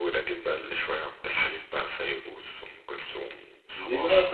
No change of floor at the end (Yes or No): No